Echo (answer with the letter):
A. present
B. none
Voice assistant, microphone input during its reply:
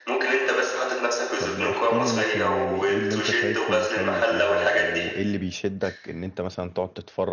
A